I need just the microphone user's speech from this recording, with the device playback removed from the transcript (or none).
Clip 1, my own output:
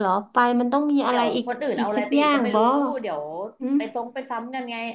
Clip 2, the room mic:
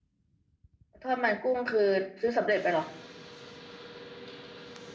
ทอดมันกุ้งคือซื้อสำเร็จไปเหรอ